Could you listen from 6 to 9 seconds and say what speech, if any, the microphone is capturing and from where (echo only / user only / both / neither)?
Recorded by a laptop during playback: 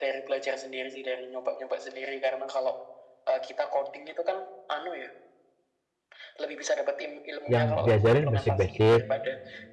both